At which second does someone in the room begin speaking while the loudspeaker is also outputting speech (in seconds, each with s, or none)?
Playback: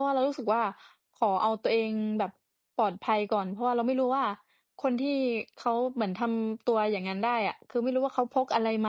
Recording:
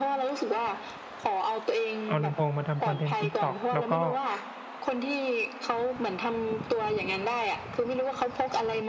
2.1 s